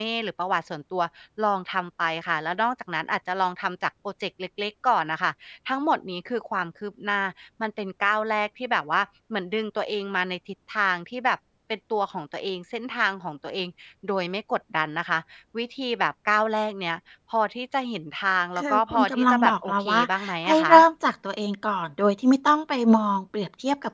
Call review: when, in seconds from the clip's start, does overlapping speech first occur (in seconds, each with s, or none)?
18.6 s